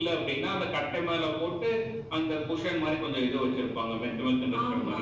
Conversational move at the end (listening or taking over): taking over